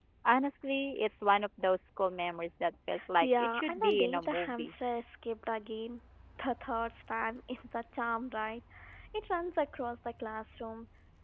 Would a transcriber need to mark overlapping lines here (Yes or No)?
Yes